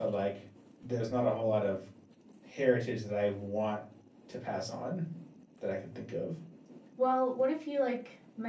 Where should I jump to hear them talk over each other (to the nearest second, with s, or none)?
none